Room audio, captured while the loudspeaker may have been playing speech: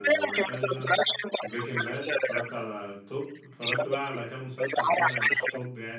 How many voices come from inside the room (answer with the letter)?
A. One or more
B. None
A